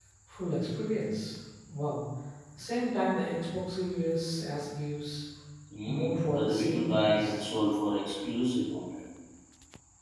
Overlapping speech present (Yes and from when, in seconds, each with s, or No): Yes, from 5.9 s